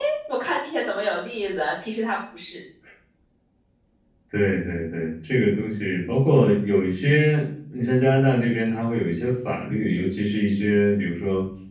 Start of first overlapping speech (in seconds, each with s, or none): none